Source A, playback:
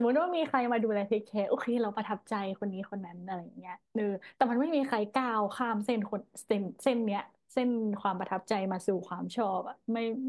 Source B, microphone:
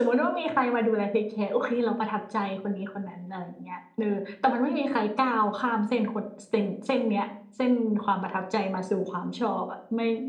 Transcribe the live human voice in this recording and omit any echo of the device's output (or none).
none